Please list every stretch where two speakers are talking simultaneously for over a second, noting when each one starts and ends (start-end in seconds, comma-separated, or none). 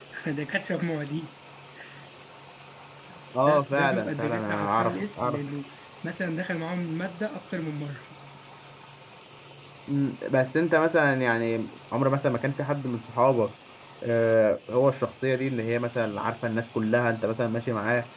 3.5-5.4